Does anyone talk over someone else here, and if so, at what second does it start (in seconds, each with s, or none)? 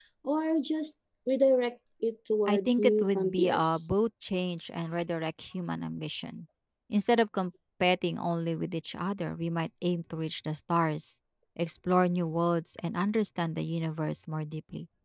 2.5 s